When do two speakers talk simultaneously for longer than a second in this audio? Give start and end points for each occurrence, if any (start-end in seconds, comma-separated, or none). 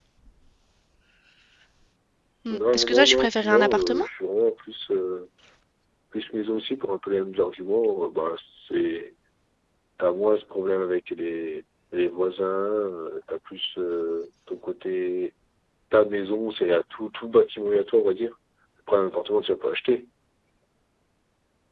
2.5-4.1